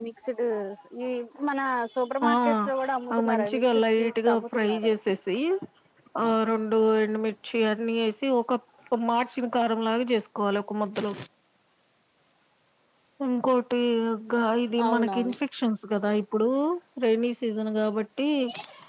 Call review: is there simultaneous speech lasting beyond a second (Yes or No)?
Yes